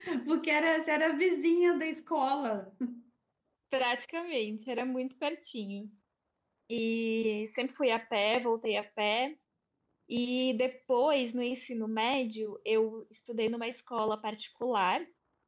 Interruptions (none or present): none